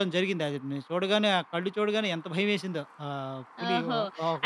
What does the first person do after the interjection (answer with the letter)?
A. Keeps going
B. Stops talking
B